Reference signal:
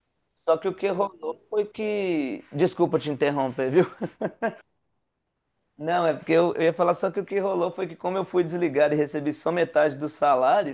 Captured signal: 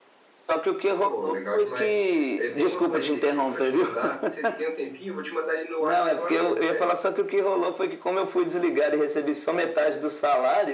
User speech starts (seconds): 1.0 s

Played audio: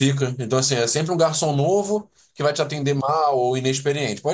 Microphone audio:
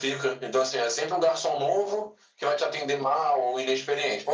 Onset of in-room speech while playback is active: none

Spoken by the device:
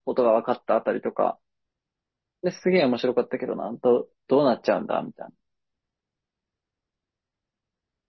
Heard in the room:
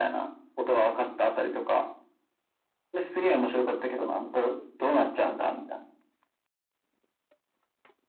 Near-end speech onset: none

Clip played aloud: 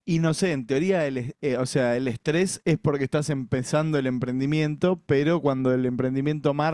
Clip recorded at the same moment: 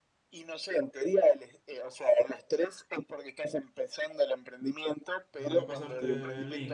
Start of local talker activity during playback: 5.4 s

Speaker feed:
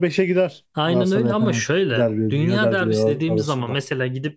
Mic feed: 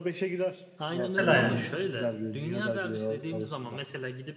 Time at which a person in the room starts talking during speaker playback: 1.0 s

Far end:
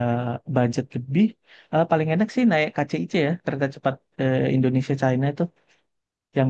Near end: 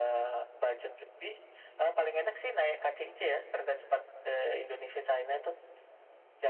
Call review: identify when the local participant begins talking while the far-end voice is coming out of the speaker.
none

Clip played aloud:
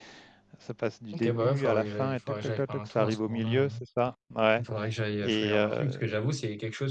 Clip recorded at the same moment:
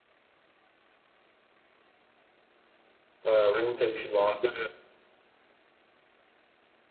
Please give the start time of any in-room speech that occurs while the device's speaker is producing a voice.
3.3 s

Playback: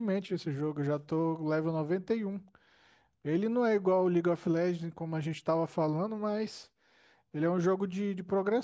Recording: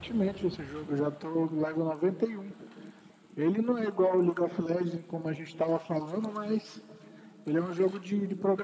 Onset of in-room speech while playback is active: none

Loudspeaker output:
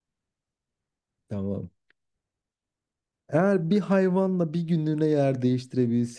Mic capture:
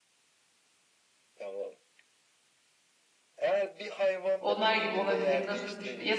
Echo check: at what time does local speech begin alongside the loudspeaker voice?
4.4 s

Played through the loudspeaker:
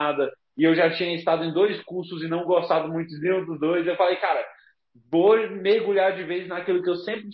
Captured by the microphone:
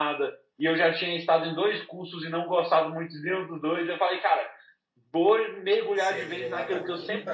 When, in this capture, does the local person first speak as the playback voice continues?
5.9 s

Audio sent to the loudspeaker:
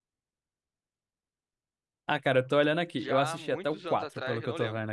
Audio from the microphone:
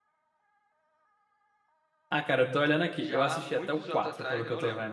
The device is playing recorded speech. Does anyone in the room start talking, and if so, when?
none

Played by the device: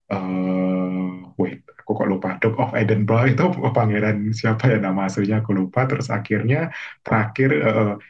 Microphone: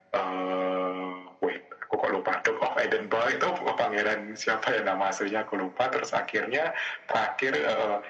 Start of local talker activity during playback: none

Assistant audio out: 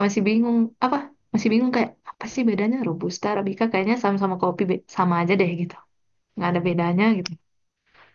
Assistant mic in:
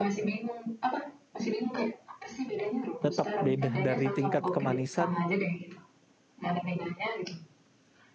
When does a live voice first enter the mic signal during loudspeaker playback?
3.0 s

